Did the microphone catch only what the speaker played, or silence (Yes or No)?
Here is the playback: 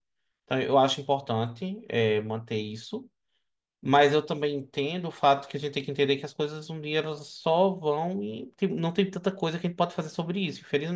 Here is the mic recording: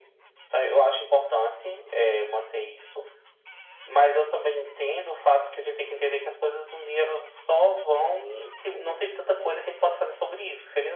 Yes